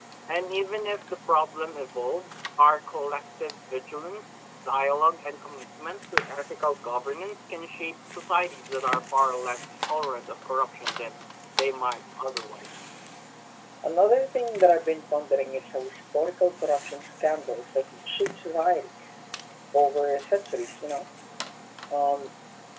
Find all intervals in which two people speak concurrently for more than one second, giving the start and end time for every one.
none

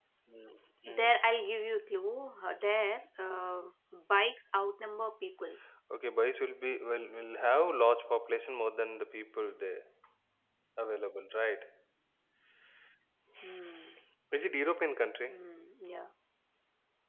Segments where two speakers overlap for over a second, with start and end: none

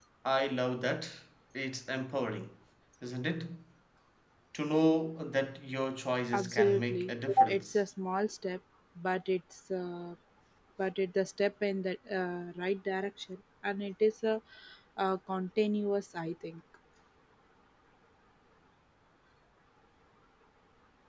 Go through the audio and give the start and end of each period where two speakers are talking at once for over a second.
6.3-7.8

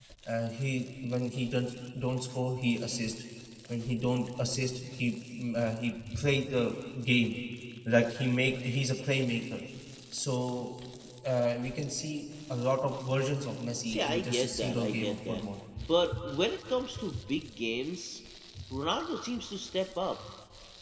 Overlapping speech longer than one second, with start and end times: 13.8-15.4

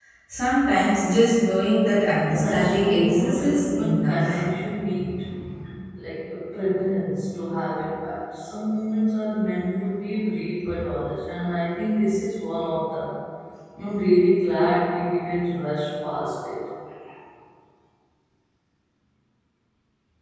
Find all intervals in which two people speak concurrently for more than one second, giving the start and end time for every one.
2.2-4.4

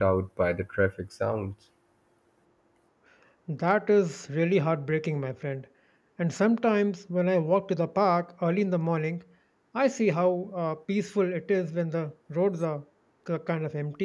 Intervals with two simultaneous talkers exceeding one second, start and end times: none

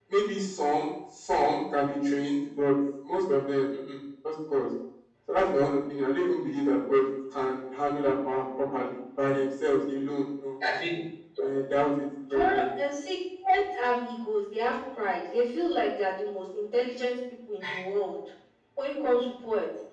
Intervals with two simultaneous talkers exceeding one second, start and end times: none

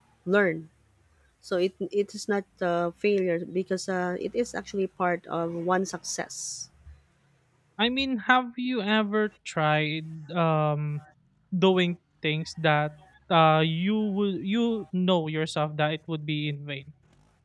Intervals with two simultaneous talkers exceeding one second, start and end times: none

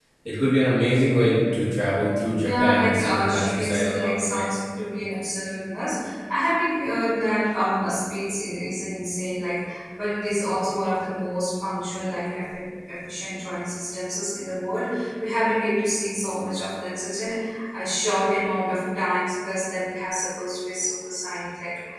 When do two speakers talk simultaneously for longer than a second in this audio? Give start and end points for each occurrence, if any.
2.4-4.5

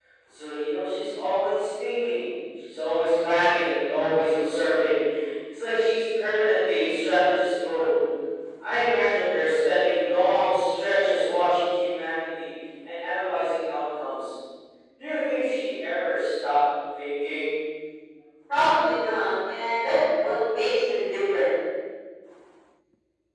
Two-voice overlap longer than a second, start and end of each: none

